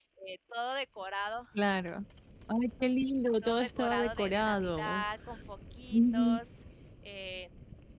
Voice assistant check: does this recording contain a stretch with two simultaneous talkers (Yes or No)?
Yes